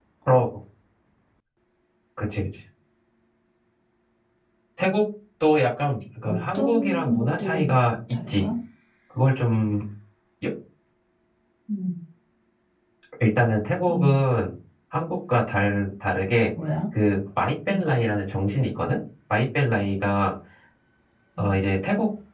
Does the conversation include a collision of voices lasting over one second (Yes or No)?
Yes